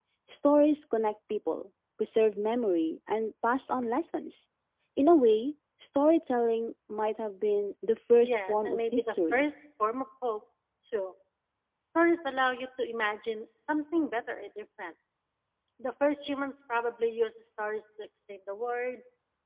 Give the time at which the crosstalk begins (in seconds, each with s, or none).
8.2 s